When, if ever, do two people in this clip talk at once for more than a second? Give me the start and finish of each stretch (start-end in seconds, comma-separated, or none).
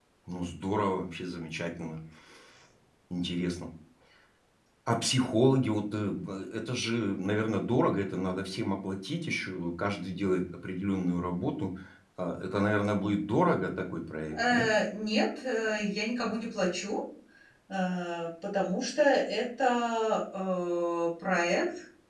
none